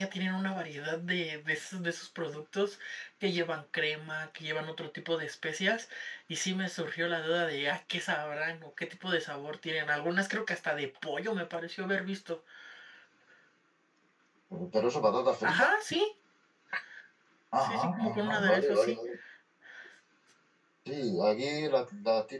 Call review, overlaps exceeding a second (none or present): present